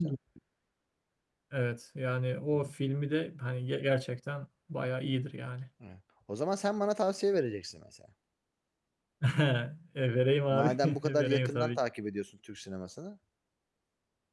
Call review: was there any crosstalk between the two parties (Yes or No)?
Yes